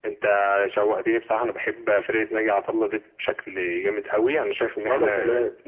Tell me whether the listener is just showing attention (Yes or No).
Yes